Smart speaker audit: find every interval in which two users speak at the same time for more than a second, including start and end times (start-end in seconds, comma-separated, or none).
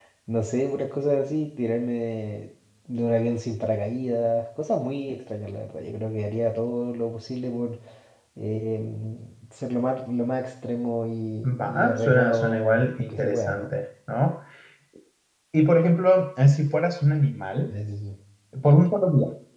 11.6-13.6